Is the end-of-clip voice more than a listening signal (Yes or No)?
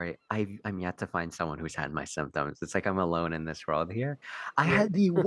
No